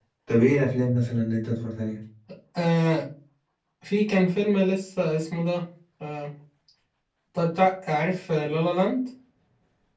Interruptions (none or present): none